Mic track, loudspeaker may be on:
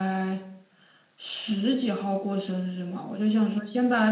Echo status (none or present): none